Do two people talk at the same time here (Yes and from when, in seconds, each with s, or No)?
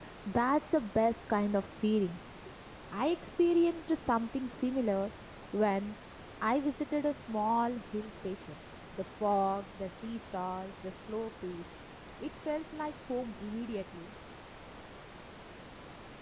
No